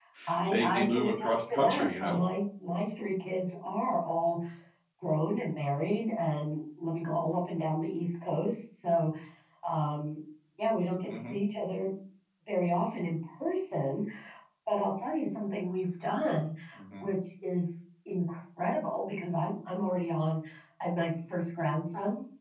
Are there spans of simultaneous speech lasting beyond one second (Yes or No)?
Yes